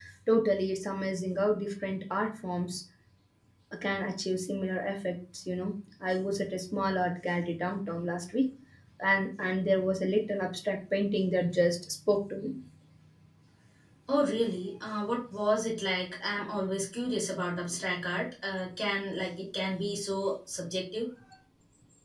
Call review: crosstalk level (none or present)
none